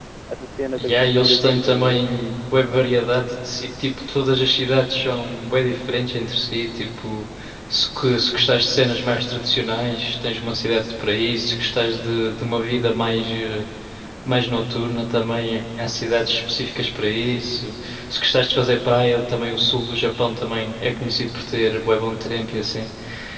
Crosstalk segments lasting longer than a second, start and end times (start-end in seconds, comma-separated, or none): 0.8-2.0